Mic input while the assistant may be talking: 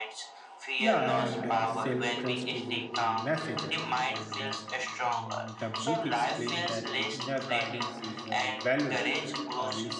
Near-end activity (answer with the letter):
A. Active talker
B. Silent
A